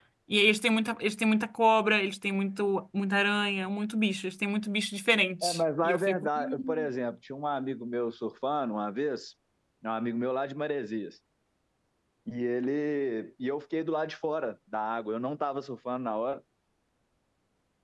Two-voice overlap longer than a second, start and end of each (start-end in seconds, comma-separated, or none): 5.4-6.9